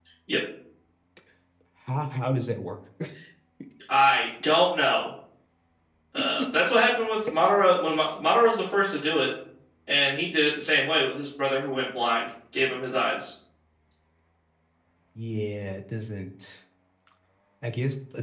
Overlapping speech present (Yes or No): No